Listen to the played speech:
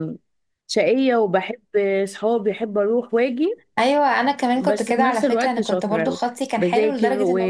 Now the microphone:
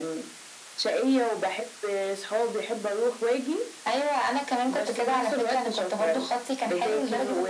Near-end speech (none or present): none